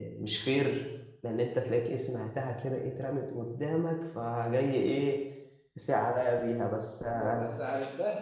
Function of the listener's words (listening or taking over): taking over